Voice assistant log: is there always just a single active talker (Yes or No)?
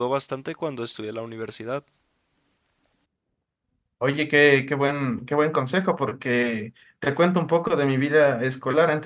Yes